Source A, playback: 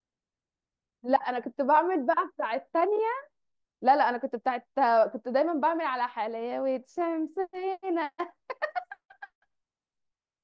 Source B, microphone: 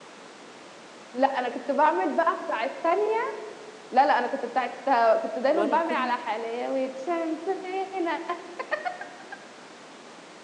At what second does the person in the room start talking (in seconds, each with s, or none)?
5.5 s